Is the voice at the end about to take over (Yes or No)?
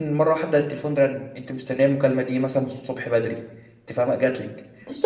Yes